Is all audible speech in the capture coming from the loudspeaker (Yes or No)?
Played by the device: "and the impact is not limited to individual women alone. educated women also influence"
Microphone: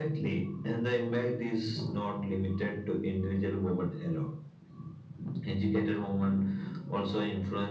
Yes